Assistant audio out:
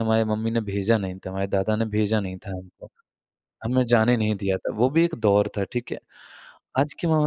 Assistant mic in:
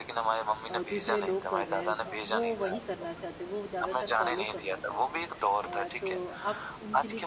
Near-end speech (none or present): present